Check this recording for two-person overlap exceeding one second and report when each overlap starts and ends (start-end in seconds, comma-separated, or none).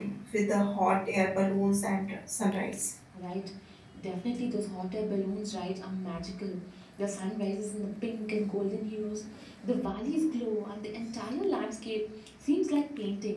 none